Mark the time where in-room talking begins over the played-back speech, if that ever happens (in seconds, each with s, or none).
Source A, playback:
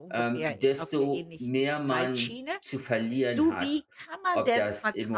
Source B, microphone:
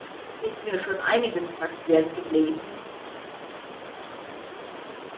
0.4 s